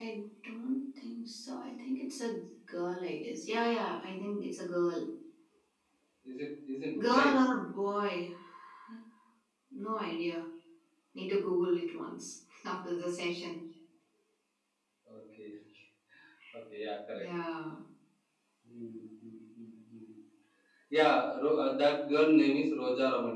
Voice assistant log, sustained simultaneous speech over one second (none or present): none